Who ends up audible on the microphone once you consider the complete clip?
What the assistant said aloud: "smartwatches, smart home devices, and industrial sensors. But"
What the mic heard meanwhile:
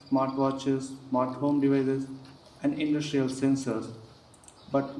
echo only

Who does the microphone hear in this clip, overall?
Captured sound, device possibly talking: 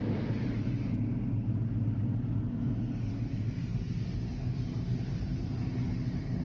neither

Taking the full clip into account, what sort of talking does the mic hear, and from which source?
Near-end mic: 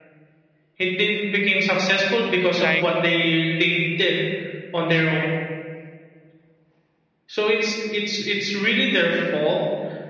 both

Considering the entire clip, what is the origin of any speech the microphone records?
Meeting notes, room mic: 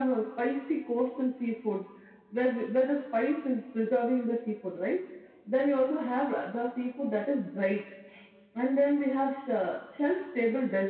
echo only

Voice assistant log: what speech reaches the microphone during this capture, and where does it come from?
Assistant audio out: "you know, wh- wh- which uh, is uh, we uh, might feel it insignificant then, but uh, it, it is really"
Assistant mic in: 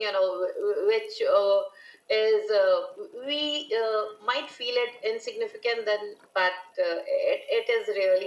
echo only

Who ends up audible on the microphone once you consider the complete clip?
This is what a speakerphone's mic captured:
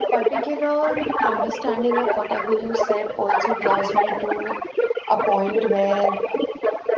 both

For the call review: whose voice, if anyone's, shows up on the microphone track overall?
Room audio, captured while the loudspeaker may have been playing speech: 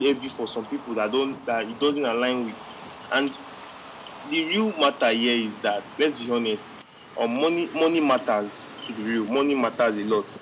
echo only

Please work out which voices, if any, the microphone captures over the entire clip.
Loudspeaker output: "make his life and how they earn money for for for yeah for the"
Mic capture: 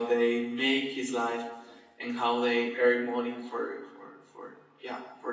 echo only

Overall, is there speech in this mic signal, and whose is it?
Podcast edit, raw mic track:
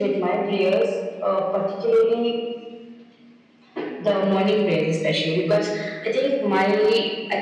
echo only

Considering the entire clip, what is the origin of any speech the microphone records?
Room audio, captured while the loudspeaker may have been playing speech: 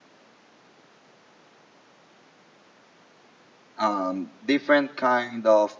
user only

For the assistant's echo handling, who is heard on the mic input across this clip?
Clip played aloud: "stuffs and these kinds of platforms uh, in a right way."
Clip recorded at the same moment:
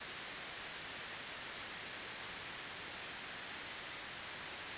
neither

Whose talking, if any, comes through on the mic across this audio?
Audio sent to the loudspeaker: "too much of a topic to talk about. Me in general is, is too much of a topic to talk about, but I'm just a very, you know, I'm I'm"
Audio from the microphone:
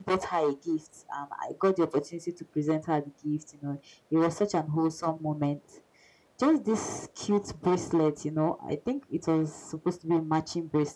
user only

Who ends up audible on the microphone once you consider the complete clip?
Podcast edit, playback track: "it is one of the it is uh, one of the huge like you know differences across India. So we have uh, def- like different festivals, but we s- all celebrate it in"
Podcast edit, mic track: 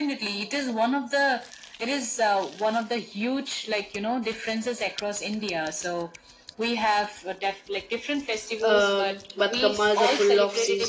both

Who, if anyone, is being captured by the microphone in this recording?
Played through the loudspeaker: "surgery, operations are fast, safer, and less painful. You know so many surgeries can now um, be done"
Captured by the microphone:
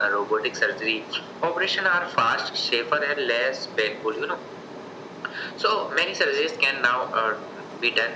echo only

